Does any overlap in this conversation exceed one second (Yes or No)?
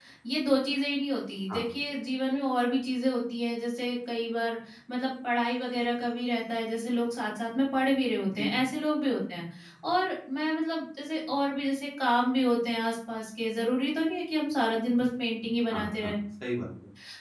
No